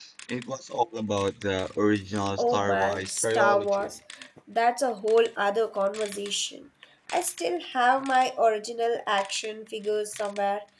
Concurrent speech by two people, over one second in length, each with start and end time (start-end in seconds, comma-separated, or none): 2.4-3.9